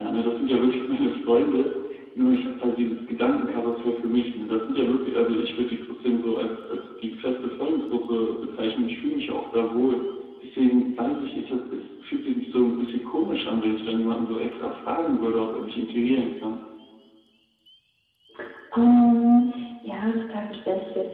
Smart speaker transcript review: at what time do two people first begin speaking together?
none

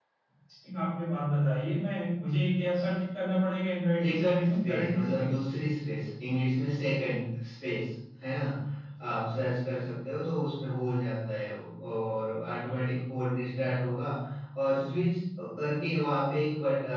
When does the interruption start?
4.0 s

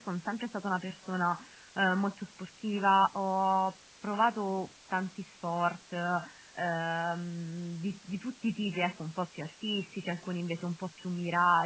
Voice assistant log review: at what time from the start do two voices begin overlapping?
none

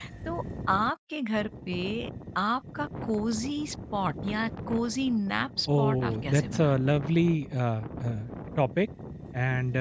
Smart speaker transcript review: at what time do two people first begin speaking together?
5.7 s

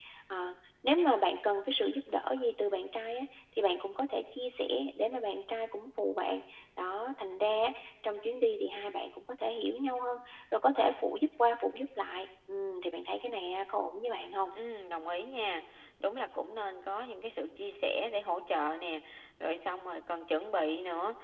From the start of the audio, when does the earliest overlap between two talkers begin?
none

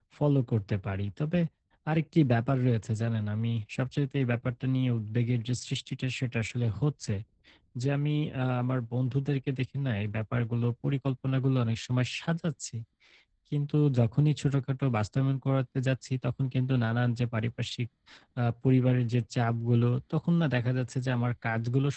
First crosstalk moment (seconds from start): none

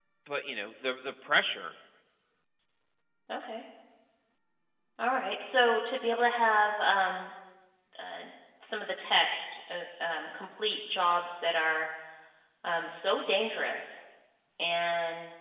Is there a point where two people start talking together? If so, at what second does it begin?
none

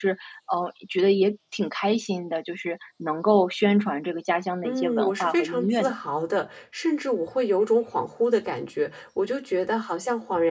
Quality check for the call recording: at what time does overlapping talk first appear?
4.6 s

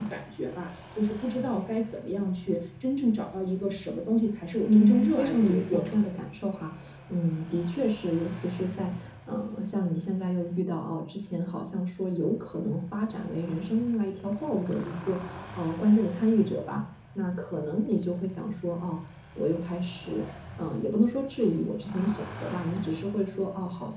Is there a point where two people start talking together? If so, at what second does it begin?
4.6 s

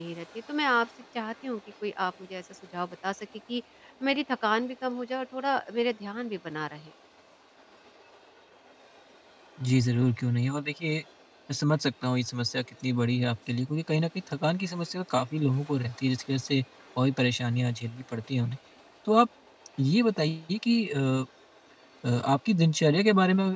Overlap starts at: none

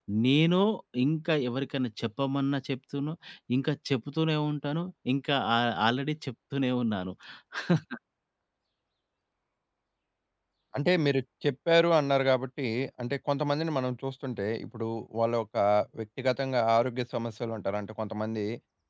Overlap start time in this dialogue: none

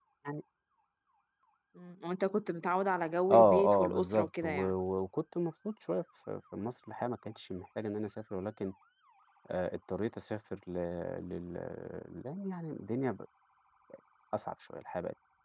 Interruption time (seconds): 3.3 s

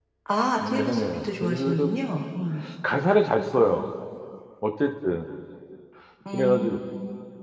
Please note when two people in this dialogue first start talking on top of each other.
0.6 s

